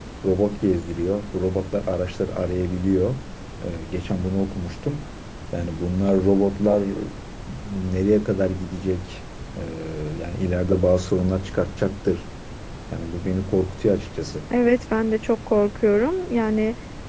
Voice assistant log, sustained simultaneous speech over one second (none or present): none